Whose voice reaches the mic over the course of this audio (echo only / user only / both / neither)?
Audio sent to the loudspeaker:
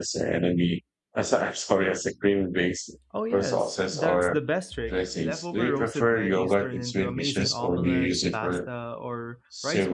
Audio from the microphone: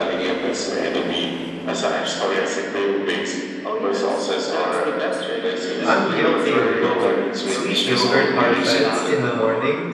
both